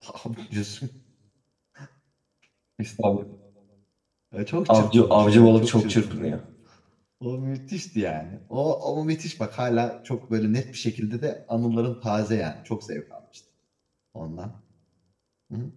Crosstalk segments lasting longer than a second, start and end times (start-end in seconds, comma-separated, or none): 4.7-6.3